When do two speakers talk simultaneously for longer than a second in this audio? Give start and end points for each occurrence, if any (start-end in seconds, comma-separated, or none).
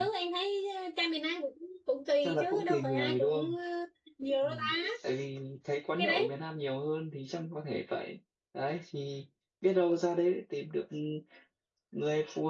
2.2-3.5